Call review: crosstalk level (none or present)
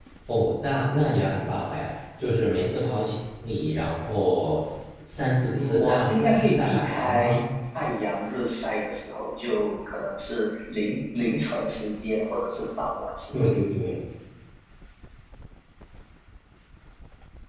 present